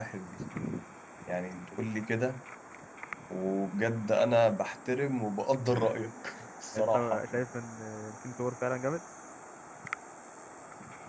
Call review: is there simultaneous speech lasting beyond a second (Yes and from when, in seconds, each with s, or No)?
No